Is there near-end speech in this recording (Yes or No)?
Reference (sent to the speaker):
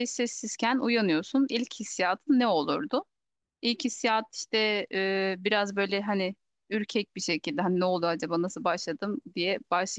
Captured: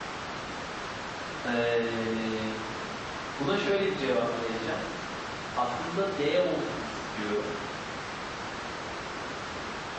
Yes